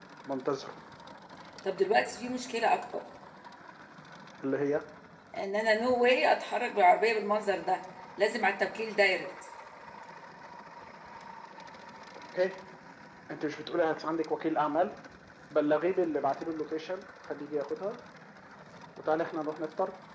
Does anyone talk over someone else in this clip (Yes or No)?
No